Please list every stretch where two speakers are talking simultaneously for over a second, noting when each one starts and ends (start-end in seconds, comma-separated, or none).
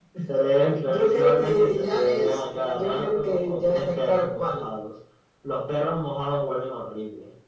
0.8-4.6